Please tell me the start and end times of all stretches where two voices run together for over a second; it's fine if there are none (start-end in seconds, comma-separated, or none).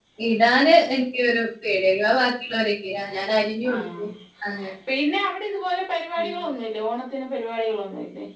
none